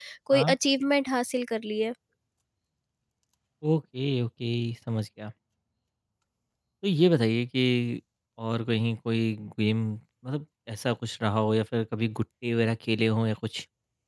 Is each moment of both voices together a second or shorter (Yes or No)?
Yes